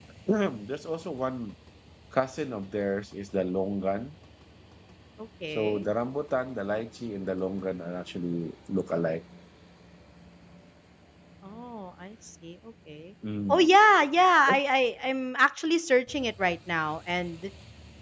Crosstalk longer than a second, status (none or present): none